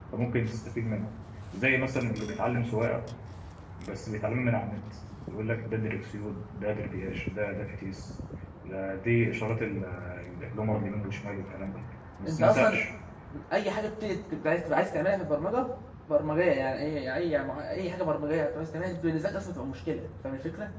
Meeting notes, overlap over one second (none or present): none